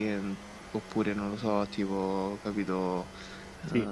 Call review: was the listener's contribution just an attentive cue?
Yes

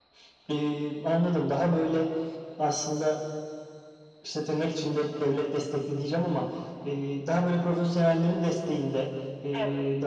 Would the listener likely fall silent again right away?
Yes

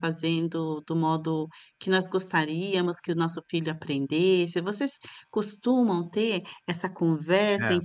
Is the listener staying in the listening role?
Yes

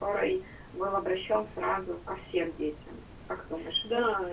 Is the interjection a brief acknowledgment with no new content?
No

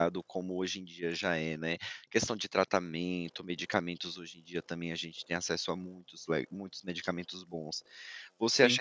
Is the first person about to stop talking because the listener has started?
No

